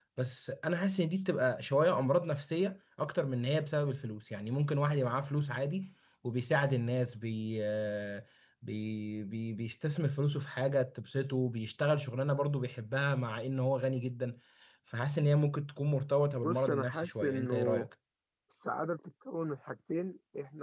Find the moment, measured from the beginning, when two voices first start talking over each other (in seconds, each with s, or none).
16.4 s